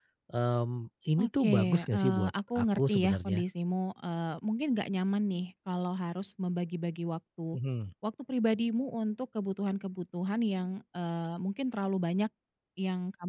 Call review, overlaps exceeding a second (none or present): present